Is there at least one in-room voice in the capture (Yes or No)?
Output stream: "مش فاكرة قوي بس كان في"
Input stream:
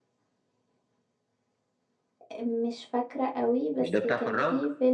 Yes